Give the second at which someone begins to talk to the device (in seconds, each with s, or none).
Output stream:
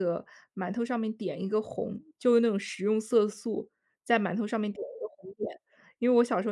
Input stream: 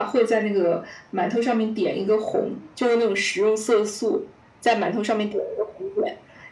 none